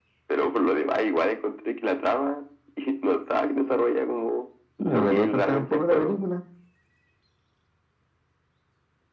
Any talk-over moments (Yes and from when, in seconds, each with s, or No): Yes, from 4.8 s